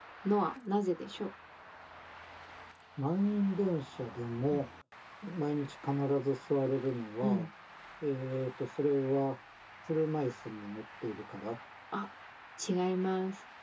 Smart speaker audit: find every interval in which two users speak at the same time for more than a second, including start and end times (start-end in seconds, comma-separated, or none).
none